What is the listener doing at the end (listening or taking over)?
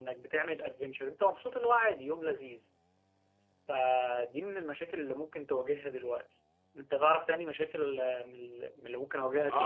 taking over